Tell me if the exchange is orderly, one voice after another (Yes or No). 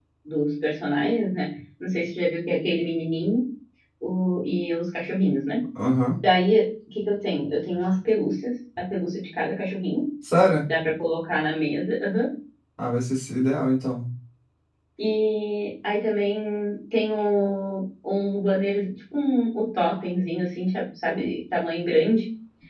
Yes